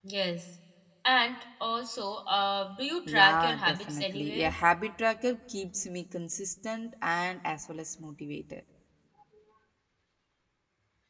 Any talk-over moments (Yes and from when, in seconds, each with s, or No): Yes, from 3.1 s